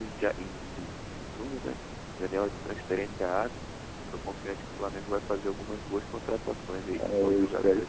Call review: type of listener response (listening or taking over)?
taking over